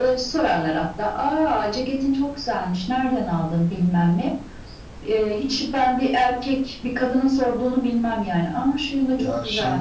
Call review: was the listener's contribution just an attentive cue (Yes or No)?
No